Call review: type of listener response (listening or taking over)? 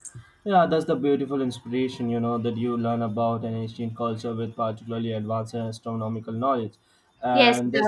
taking over